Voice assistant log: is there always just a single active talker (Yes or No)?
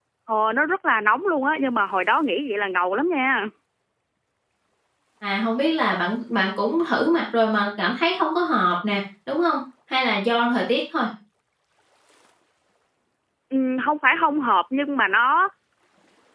Yes